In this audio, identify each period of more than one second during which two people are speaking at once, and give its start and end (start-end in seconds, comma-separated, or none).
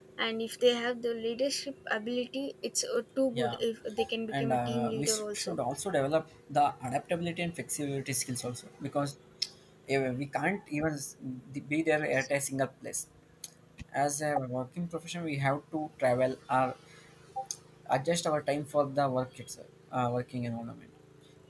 4.3-5.6